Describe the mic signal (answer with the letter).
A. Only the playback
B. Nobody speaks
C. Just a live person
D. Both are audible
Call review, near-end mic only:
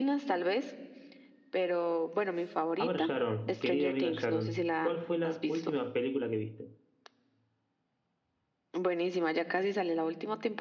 D